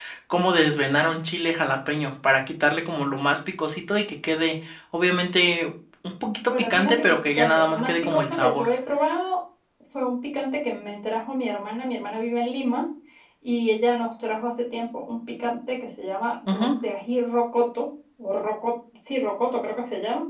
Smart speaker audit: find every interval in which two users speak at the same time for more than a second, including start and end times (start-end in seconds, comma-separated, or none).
6.5-8.7